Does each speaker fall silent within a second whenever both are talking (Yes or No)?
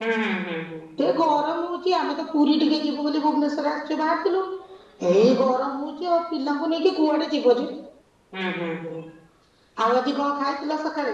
Yes